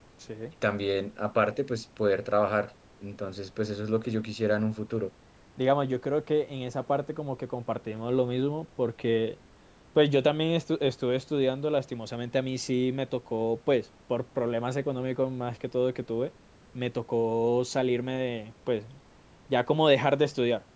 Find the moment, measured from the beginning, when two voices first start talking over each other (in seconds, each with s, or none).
none